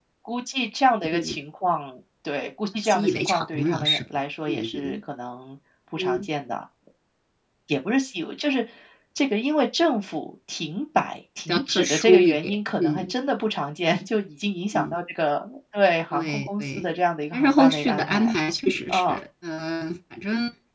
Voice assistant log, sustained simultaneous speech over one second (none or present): present